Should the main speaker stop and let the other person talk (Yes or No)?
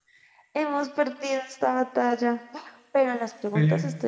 No